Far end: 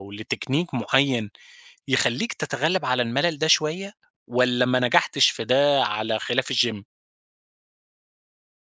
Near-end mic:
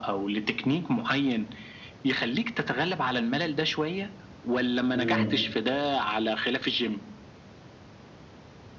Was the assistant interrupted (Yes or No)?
Yes